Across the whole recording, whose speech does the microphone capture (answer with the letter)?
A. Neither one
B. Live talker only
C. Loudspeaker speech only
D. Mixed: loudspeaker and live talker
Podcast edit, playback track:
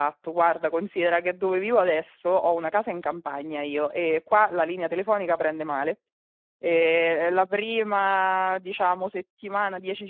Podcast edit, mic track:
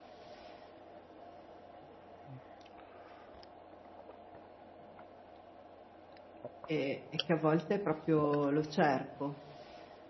B